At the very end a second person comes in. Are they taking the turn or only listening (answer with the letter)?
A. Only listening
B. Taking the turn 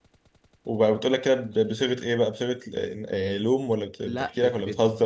B